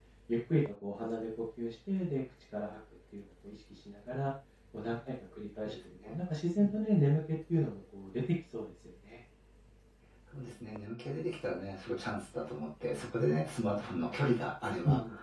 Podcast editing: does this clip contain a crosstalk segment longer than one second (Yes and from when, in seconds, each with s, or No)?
No